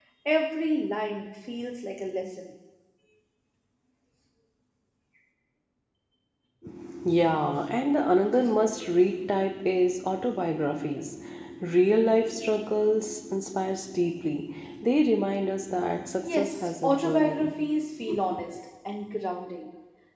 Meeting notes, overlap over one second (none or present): present